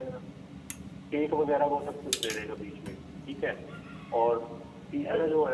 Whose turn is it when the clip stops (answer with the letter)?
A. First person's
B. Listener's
A